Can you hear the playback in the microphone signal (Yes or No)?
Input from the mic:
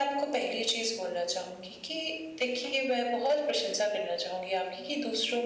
Yes